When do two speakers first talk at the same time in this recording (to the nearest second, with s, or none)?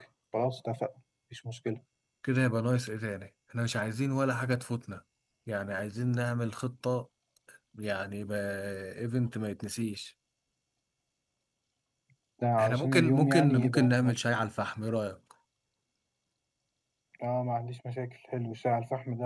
13 s